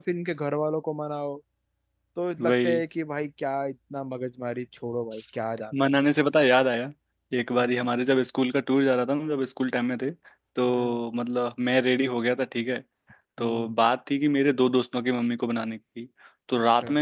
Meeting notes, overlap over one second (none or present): none